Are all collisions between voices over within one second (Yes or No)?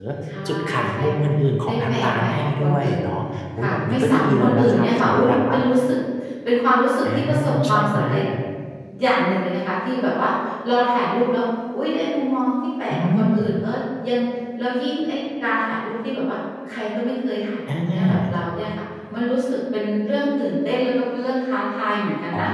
No